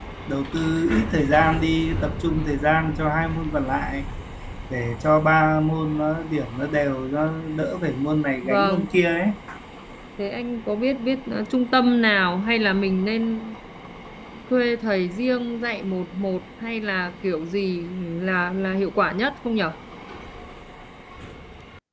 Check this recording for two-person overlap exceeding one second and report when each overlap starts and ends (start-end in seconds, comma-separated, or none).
none